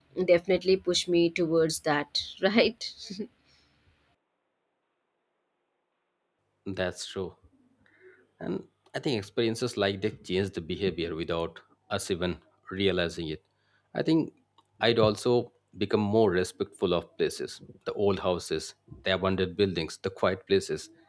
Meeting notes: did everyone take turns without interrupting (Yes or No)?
Yes